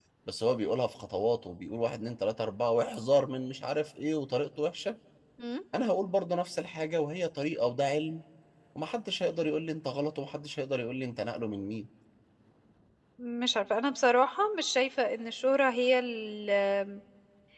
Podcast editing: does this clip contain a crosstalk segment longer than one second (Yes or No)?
No